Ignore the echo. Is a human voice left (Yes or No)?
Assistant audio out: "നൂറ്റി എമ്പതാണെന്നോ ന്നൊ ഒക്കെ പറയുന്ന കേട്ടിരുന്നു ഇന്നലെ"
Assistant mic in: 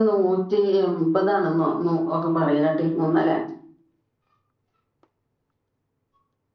No